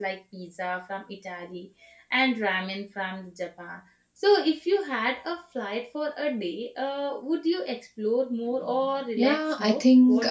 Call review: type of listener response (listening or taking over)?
taking over